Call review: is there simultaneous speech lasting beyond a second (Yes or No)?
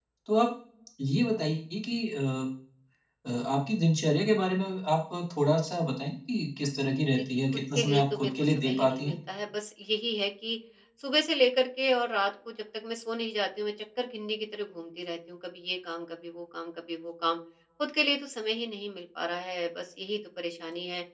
Yes